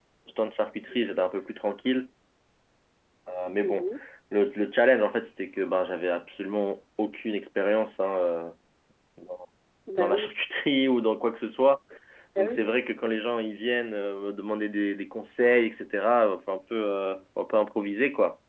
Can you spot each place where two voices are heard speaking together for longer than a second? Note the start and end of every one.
none

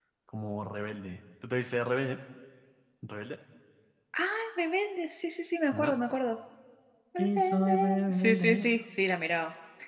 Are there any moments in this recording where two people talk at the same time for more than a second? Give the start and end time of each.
7.2-8.6

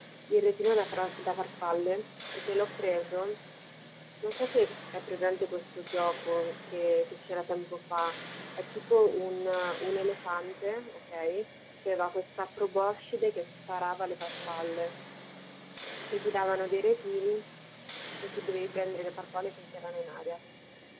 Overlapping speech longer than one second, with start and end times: none

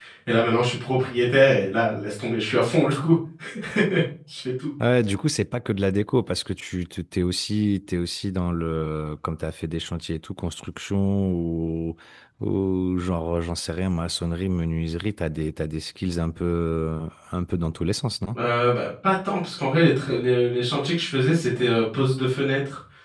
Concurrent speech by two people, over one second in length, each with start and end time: none

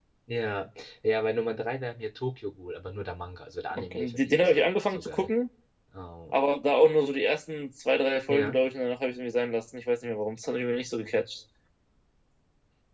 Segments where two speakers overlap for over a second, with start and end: 3.7-5.3

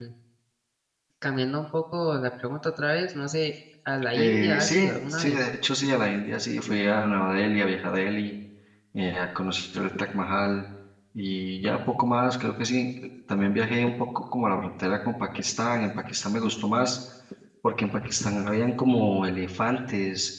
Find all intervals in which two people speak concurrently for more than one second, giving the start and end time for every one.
4.1-5.5

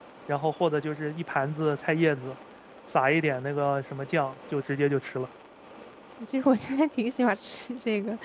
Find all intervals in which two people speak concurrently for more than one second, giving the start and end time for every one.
none

